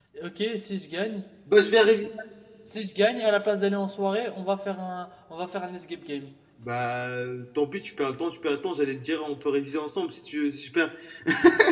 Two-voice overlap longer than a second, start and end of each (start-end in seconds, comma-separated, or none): none